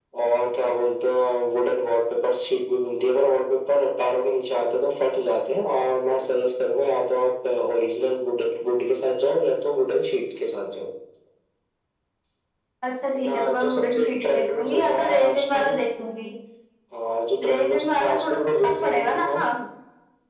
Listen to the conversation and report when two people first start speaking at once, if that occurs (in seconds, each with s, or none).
13.1 s